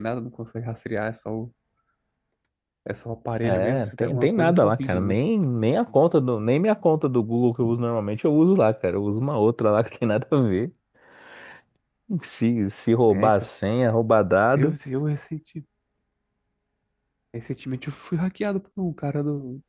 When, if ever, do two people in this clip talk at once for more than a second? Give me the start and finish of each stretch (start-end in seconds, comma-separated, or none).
3.4-5.2